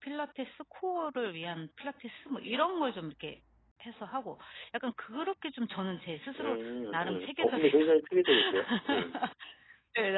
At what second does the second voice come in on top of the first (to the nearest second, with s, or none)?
6 s